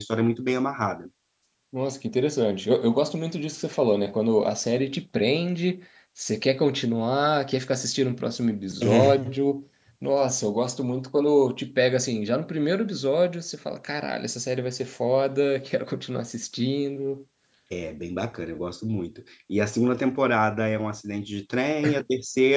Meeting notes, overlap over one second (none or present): none